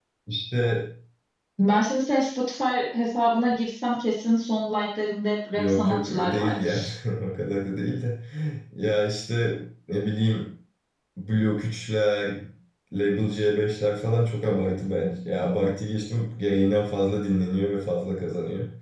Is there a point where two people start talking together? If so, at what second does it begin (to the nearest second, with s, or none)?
6 s